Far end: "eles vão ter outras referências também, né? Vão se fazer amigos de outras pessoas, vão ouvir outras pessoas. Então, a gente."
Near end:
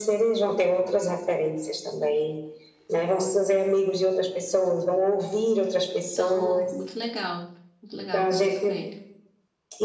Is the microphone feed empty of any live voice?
No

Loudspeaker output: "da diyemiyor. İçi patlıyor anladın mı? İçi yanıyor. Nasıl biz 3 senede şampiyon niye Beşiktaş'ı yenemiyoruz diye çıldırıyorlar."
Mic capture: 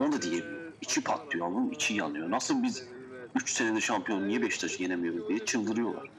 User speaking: Yes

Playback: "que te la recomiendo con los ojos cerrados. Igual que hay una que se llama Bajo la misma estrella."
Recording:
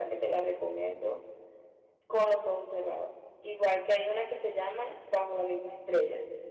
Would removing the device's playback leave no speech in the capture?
Yes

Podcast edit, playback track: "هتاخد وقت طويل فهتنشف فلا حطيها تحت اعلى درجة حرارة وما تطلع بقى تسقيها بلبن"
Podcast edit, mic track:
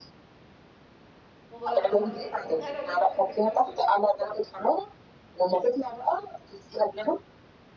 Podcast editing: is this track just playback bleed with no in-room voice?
No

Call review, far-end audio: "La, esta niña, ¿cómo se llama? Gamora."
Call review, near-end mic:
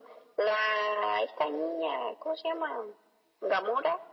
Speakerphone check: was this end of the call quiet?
Yes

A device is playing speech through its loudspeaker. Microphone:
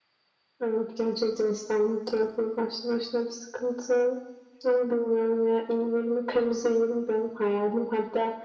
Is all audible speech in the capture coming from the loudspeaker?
Yes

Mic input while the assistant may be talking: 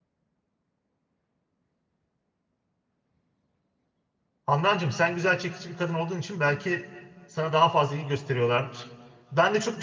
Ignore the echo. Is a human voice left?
Yes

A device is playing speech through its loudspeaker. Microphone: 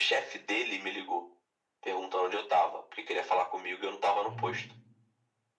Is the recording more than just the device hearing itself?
Yes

